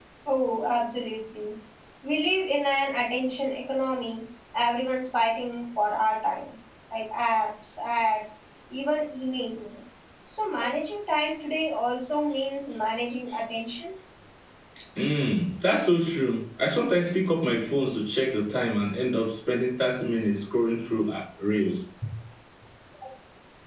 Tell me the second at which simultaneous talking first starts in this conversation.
none

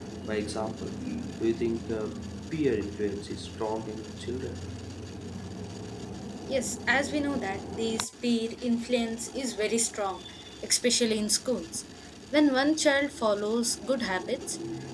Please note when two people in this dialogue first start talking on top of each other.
none

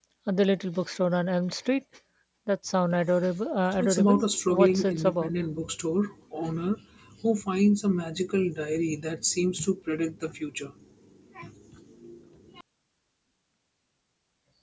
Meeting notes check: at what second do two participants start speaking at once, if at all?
3.7 s

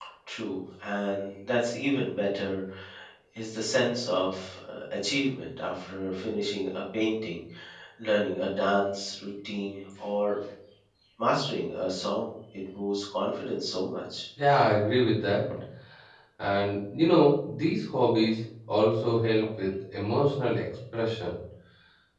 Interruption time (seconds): none

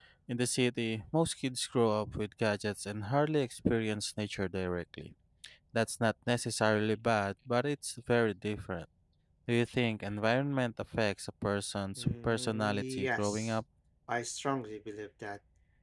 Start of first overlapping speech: 12.0 s

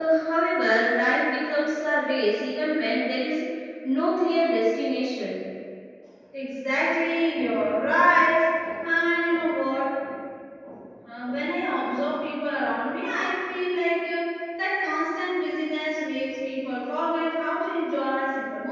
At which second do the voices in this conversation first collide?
none

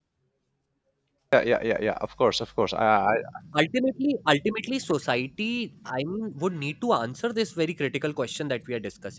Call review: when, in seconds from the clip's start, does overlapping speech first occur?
none

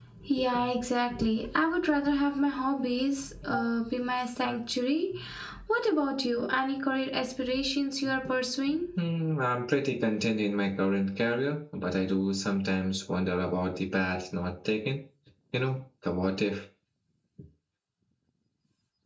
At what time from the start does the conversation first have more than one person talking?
none

